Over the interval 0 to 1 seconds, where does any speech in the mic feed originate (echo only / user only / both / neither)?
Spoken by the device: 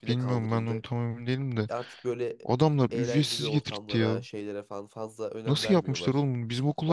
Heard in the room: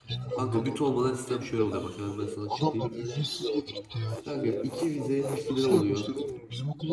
both